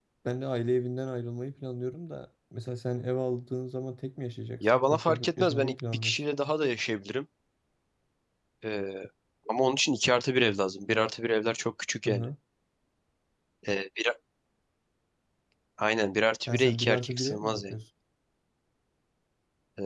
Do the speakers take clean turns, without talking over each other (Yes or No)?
No